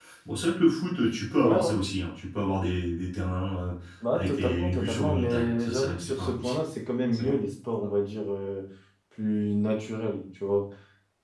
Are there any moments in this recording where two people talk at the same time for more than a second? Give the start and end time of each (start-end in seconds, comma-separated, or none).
4.1-6.6